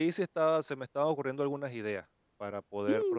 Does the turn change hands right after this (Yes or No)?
Yes